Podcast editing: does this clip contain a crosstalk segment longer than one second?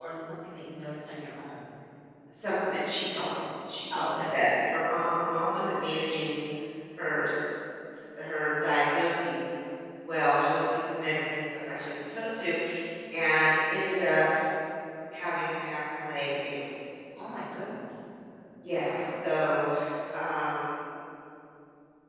No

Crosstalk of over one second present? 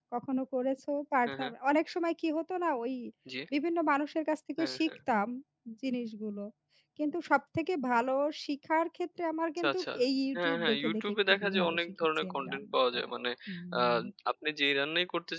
Yes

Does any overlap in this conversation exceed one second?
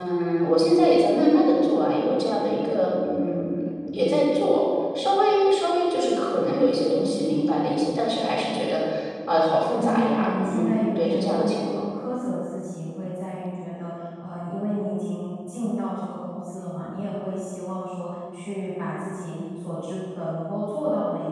Yes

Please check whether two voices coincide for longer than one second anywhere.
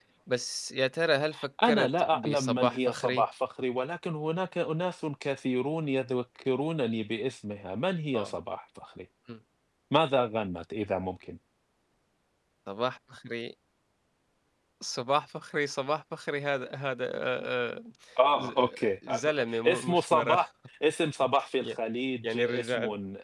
Yes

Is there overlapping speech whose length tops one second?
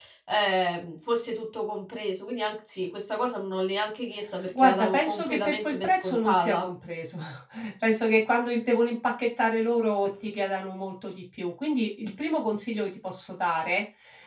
Yes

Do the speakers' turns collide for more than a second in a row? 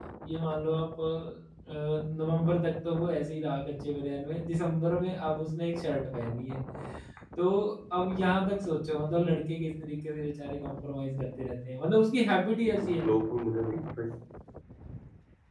No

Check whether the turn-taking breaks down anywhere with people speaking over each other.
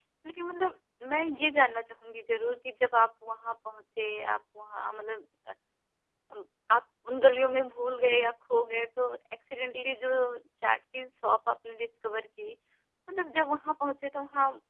No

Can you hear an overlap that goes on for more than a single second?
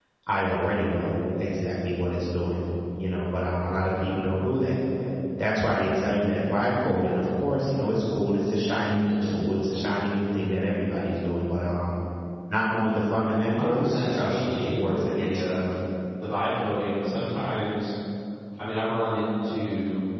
Yes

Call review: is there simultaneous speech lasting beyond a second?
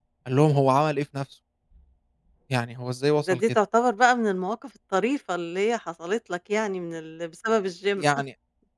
No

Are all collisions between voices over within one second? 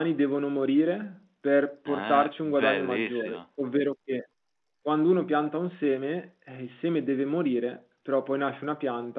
No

